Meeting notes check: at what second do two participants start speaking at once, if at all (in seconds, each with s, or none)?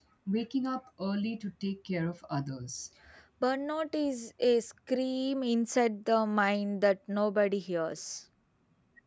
none